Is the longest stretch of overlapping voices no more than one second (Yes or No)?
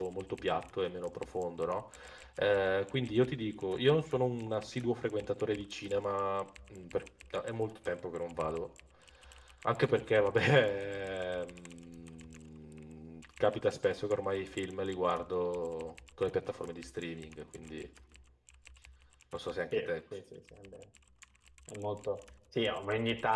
Yes